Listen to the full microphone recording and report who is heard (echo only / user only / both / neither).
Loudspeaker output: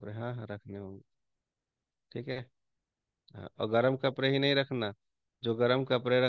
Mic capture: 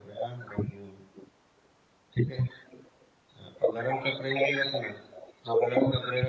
echo only